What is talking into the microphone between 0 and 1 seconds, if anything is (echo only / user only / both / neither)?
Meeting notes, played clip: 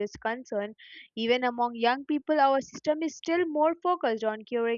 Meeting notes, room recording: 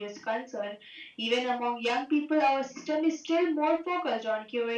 echo only